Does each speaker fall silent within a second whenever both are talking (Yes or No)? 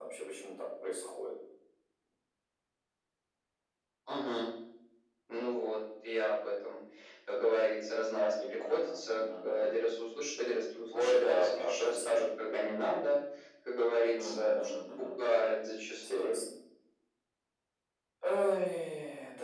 No